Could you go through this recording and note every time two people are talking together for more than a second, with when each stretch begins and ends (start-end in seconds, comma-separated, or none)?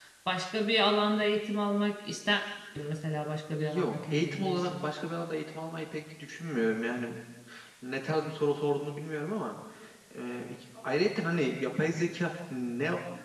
3.6-4.9